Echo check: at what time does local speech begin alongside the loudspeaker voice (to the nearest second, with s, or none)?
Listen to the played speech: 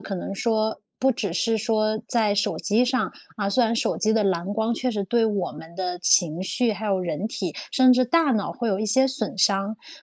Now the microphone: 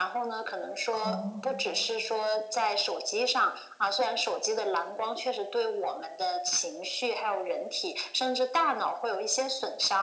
1 s